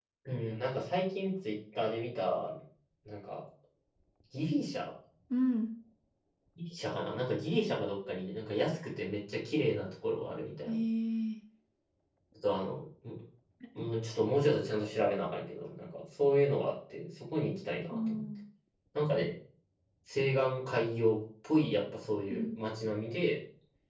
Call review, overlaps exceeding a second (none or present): none